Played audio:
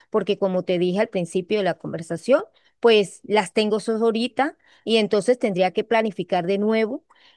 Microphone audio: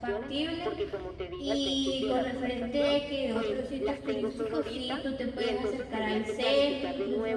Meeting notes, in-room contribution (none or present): present